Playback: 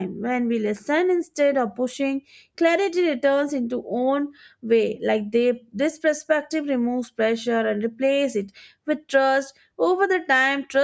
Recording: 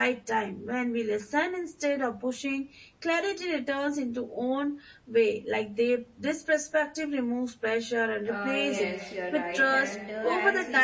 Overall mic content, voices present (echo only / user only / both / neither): both